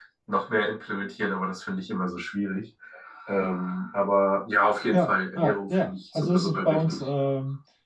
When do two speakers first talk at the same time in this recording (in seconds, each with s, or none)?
4.9 s